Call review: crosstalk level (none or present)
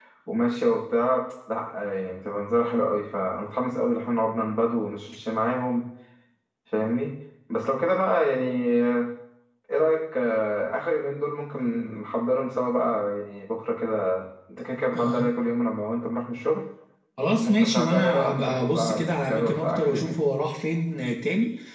present